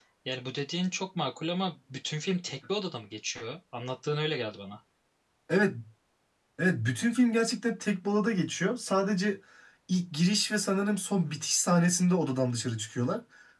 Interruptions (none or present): none